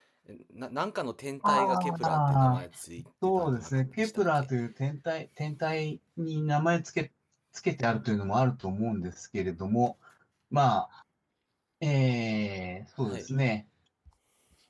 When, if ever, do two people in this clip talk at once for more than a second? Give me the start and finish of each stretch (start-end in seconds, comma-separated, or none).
1.4-2.6, 3.2-4.5